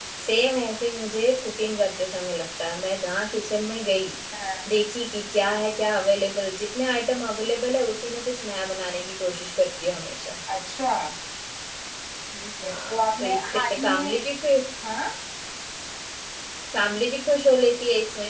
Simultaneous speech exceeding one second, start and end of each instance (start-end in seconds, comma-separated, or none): 12.6-14.1